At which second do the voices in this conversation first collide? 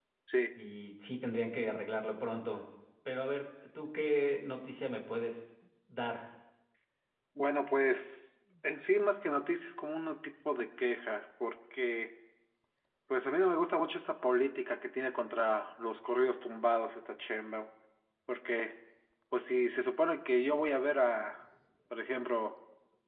none

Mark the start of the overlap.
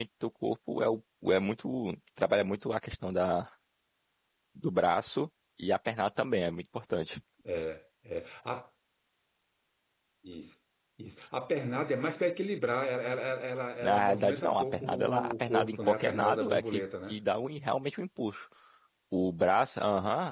13.8 s

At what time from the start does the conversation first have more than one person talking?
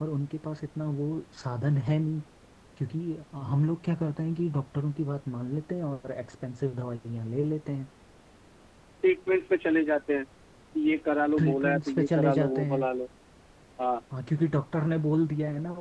11.4 s

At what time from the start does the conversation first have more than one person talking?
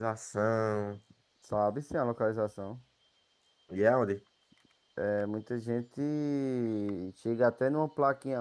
none

